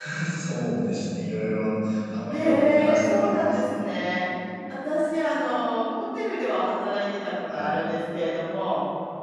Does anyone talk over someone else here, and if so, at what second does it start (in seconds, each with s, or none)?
2.3 s